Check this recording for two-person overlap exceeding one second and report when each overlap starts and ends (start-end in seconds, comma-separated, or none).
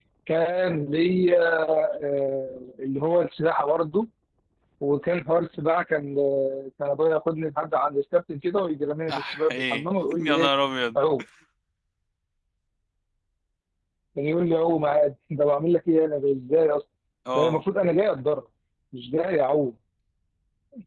9.1-10.5